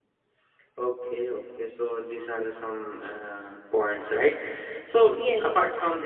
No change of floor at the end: Yes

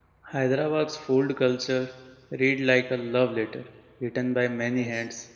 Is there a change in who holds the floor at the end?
No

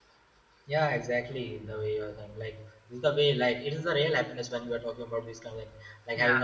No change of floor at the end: Yes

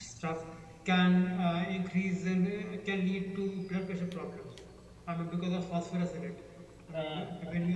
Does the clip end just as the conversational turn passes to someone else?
Yes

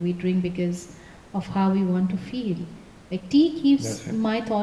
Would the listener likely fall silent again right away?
Yes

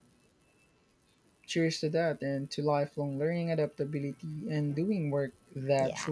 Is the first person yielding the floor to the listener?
Yes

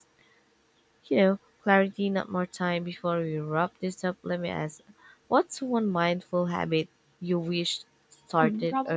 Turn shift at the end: Yes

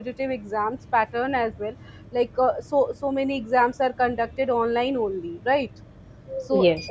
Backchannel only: Yes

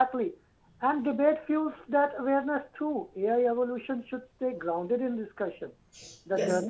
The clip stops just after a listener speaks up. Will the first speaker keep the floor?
Yes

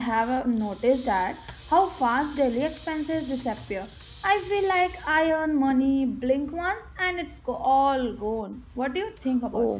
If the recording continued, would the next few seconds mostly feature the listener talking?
Yes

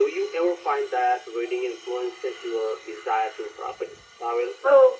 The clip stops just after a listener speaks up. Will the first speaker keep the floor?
No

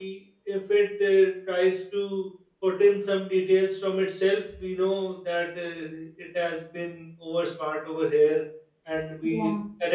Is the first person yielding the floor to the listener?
No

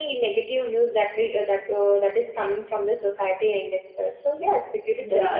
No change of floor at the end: Yes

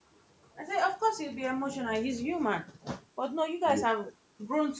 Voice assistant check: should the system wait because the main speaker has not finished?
Yes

